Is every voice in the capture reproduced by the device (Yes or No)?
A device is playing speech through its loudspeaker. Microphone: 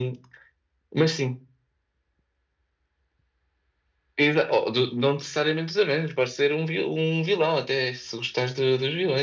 Yes